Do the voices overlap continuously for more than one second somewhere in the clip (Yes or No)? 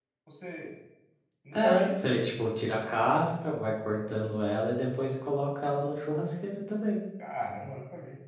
No